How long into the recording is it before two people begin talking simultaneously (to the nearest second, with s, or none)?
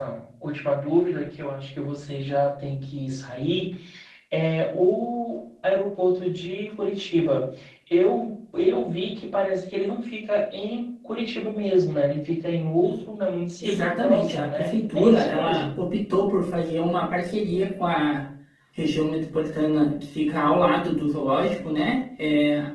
14 s